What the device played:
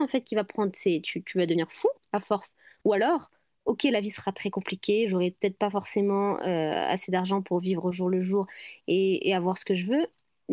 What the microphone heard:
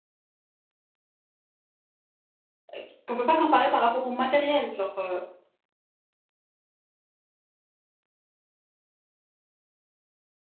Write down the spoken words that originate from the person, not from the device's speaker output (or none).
euh, qu'on peut pas comparer par rapport au matériel. Genre, euh,